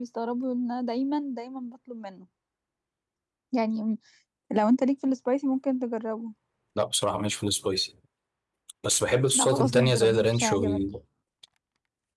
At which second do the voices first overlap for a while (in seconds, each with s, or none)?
9.3 s